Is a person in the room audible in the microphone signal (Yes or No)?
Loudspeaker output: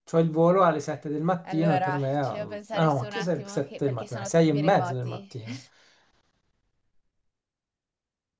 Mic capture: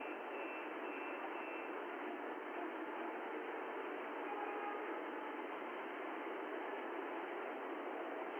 No